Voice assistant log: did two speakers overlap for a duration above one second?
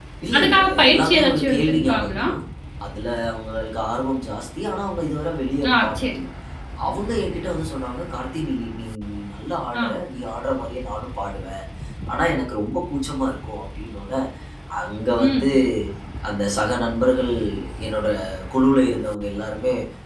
Yes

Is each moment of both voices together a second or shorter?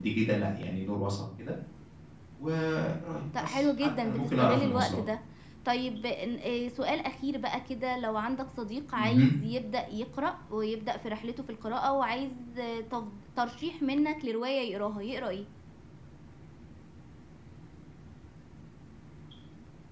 No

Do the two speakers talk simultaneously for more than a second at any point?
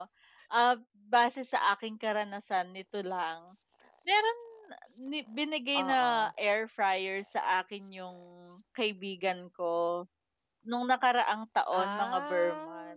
Yes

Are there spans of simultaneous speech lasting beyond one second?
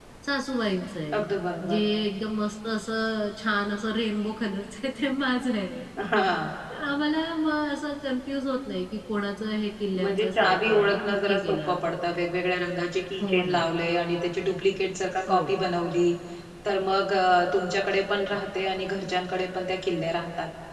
Yes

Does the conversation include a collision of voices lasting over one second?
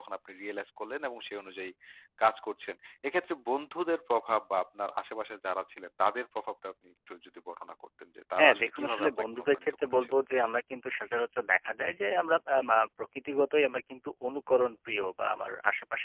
Yes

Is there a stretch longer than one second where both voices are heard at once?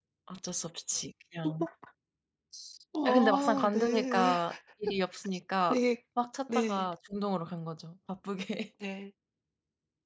Yes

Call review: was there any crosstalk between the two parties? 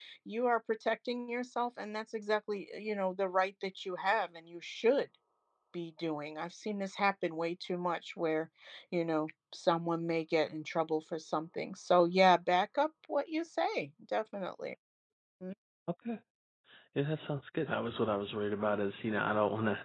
No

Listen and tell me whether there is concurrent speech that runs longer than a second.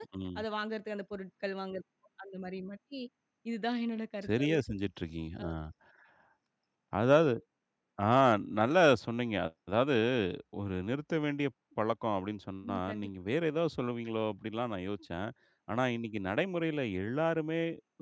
No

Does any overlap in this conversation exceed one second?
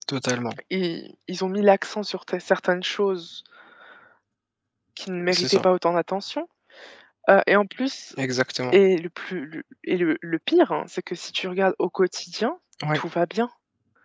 No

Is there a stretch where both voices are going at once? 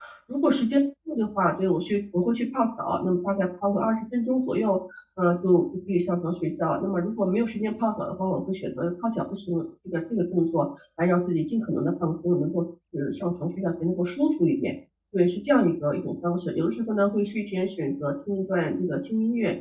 No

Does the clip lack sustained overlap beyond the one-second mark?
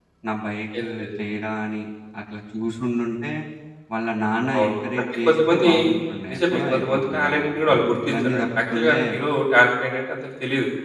No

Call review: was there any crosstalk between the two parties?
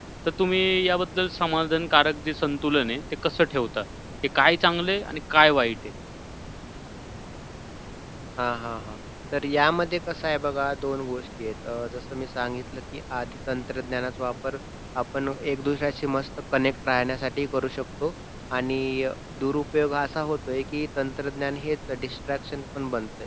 No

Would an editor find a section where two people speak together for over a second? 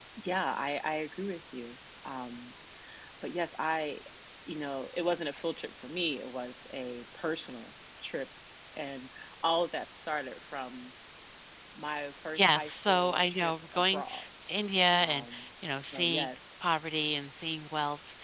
Yes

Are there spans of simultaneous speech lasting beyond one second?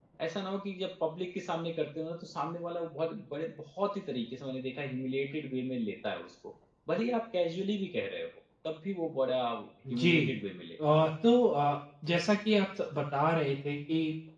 No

